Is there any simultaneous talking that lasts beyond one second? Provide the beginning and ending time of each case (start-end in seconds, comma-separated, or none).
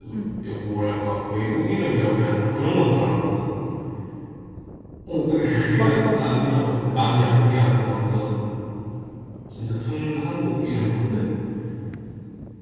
5.8-7.4